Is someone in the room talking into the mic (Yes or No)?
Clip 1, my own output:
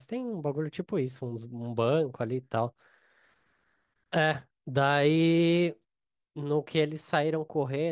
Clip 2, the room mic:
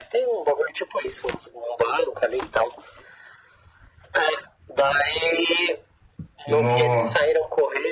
Yes